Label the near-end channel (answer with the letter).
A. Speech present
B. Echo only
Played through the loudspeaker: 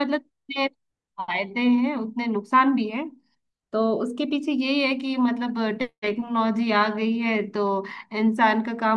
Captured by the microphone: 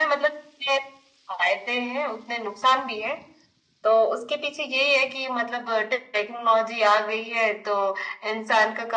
B